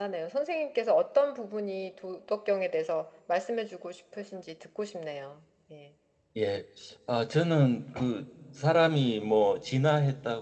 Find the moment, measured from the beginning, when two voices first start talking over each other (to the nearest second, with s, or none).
none